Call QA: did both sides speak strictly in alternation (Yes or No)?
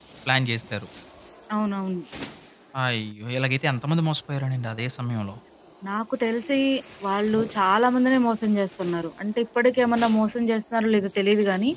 Yes